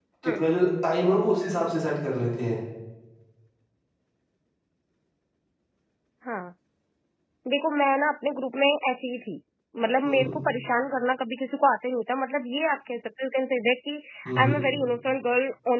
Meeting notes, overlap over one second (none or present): none